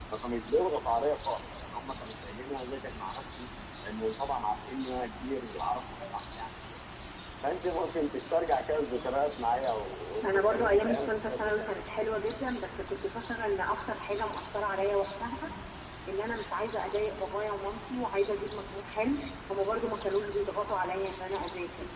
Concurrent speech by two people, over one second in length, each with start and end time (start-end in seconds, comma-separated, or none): 10.2-11.8